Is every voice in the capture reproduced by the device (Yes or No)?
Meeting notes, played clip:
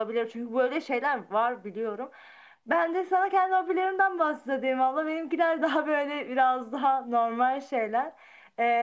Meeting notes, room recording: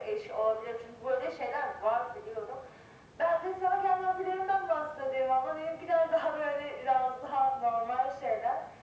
Yes